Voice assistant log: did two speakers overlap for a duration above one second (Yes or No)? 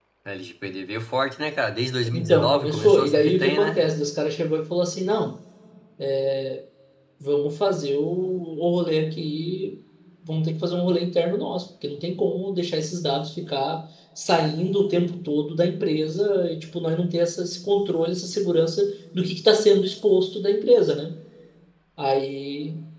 Yes